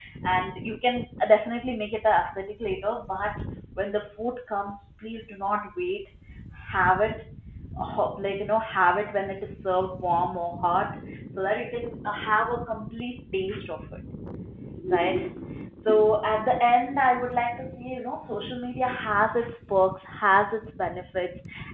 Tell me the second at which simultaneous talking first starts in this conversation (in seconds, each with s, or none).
none